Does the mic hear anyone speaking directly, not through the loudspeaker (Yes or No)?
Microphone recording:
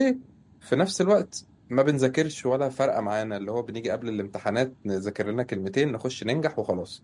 Yes